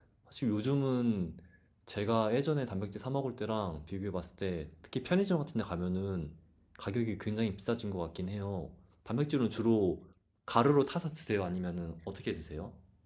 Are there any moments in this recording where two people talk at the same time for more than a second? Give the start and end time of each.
none

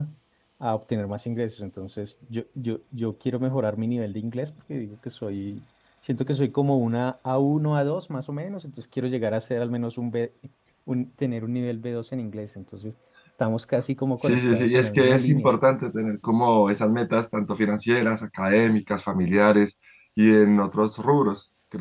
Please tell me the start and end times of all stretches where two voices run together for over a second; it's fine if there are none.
14.2-15.5

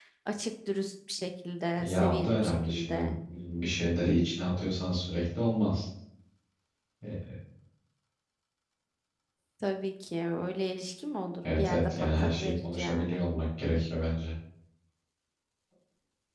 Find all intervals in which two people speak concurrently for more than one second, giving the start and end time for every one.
1.8-3.1, 11.6-13.2

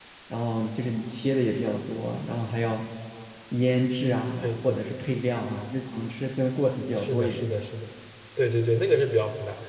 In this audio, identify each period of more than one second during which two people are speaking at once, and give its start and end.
none

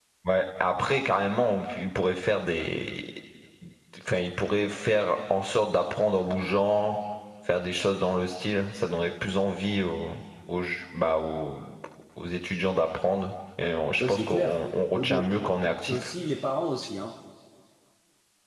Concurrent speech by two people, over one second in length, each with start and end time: 14.0-15.3

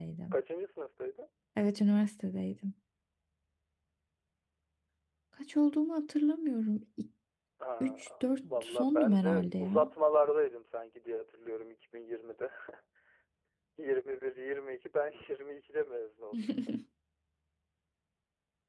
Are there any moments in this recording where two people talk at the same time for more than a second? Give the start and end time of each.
8.5-9.9

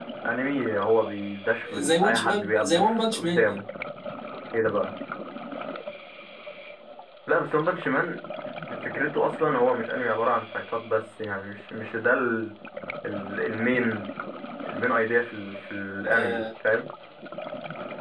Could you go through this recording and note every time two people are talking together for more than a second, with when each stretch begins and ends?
1.9-3.6

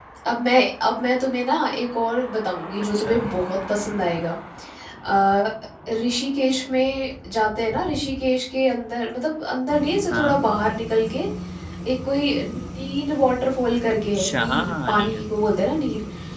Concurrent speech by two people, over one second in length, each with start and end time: 13.9-15.3

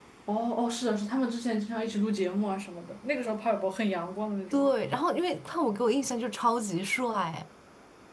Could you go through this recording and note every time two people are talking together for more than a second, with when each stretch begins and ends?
none

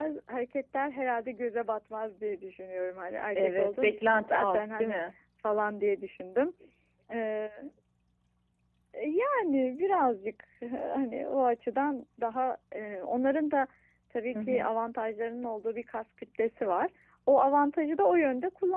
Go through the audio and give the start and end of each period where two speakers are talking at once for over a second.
3.4-5.0

